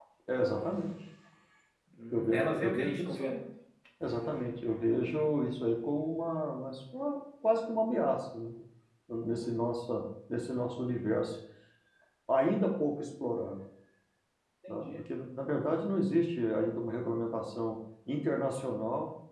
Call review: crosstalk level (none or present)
present